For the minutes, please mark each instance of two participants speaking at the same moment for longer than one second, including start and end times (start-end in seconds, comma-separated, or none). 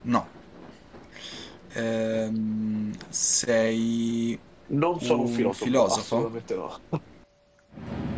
5.0-6.3